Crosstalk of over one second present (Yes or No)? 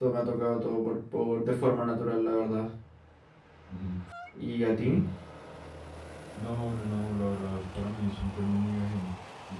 No